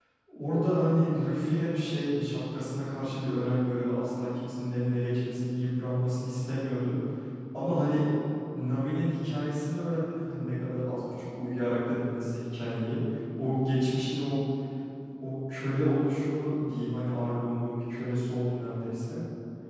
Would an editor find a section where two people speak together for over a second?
No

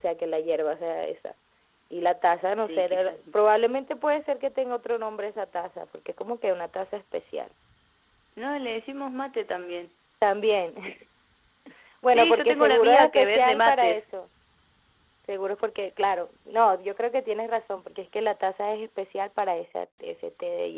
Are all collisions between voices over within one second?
No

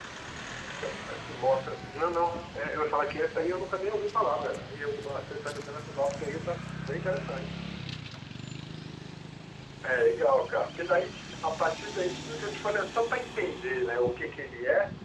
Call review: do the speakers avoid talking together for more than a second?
Yes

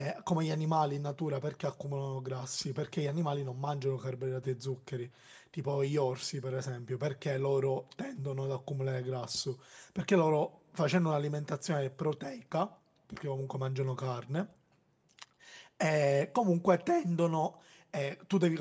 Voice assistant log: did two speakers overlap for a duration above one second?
No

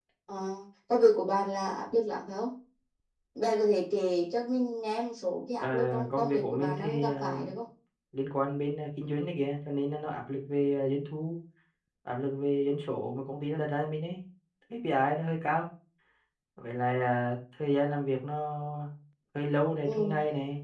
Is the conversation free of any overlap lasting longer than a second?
No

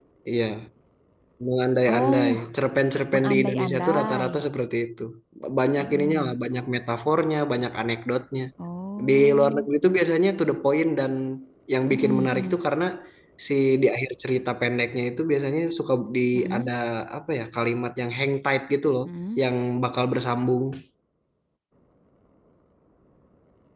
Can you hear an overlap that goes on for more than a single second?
Yes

